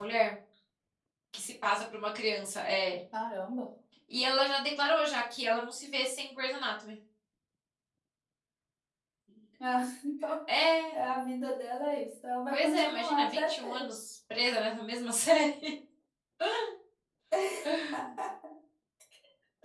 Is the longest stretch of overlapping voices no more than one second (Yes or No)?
No